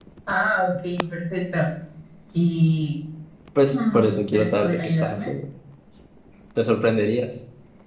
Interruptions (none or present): present